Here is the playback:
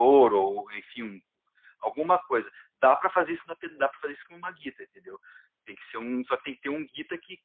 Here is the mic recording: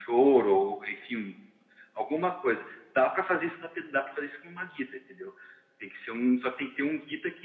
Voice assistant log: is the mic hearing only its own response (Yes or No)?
Yes